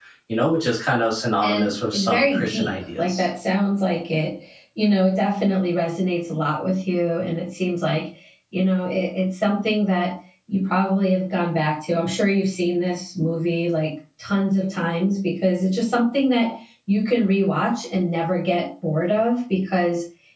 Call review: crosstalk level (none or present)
present